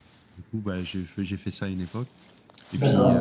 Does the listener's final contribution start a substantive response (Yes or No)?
No